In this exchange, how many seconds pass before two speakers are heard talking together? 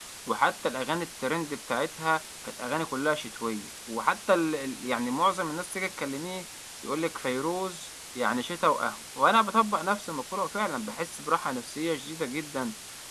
none

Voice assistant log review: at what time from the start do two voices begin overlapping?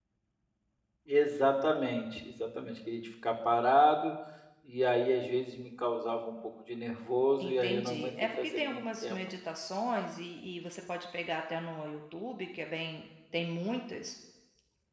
7.4 s

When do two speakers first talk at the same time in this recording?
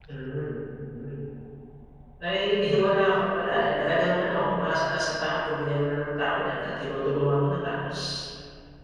none

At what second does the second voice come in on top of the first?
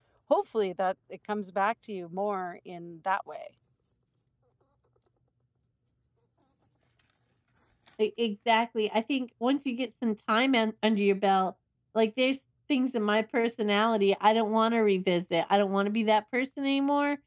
none

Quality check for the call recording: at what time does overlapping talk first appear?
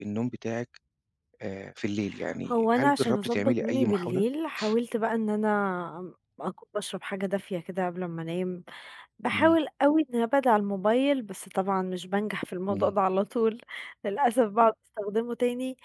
2.5 s

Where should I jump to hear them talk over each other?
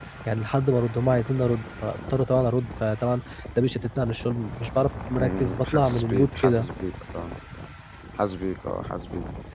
5.2 s

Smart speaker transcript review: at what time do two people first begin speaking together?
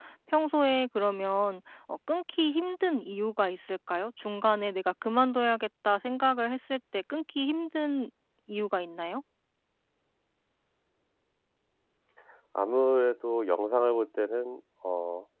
none

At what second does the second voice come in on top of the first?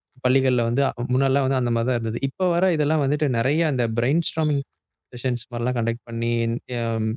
none

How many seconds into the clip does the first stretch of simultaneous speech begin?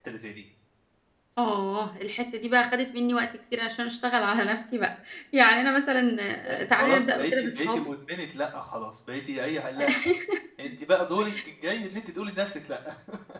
6.5 s

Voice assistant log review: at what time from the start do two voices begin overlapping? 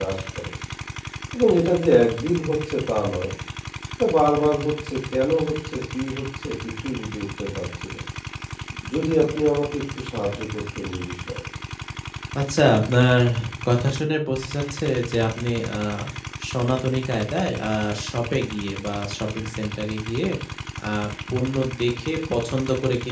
none

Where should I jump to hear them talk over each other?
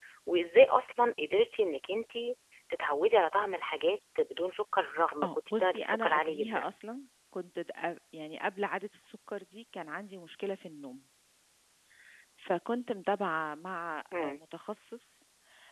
5.2 s

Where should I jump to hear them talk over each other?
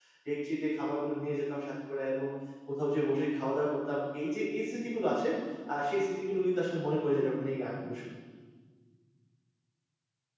none

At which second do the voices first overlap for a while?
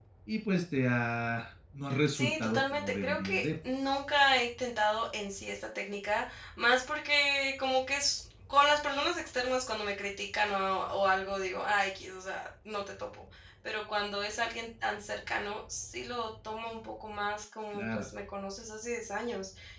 2.1 s

